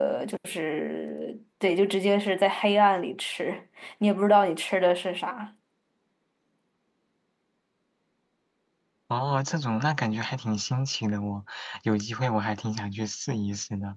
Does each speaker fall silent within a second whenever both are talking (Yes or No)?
Yes